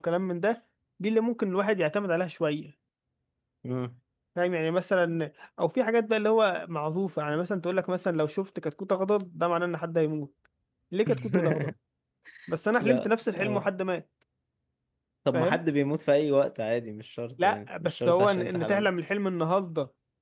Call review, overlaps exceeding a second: present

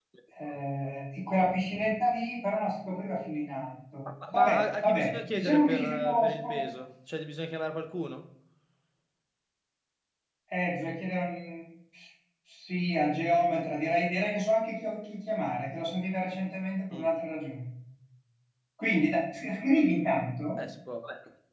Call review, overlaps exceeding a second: present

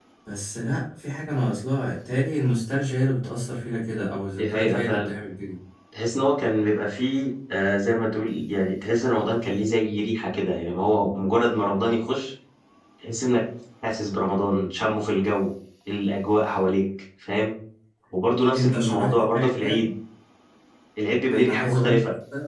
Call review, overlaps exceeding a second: present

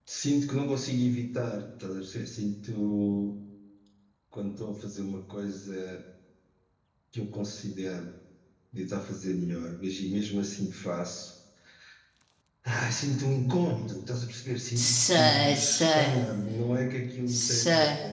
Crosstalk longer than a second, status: present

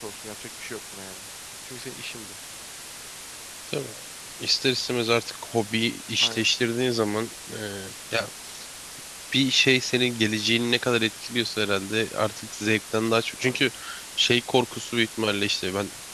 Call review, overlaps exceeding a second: none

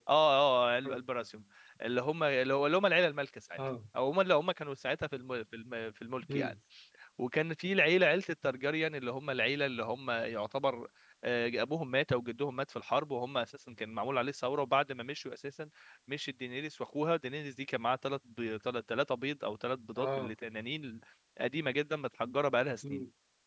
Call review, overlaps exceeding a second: none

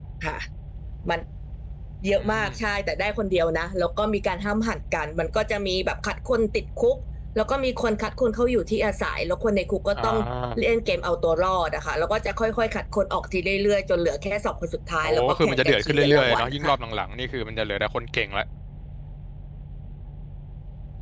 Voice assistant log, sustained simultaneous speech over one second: present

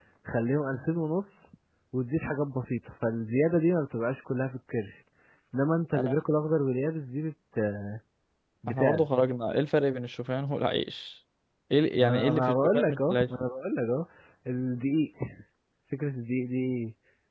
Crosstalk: present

